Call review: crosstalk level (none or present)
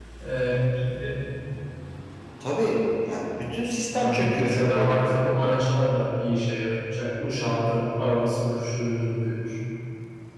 present